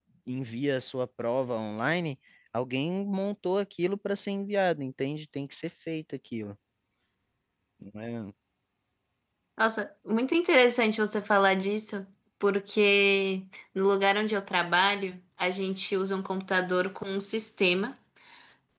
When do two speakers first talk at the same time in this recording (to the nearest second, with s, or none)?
none